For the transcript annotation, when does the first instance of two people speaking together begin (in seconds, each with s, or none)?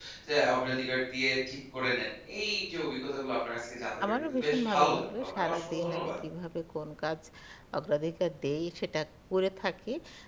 4.0 s